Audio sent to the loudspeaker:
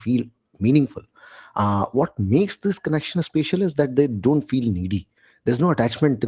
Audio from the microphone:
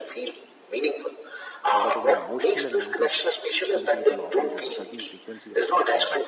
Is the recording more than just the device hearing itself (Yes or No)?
Yes